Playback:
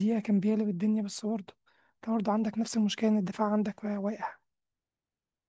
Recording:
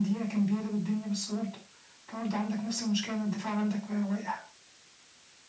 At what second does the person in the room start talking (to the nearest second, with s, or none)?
none